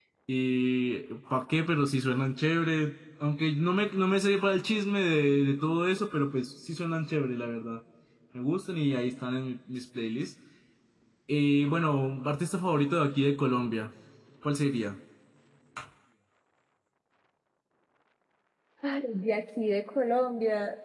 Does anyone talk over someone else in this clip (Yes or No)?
No